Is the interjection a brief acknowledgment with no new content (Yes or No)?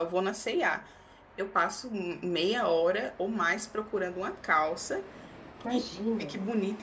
Yes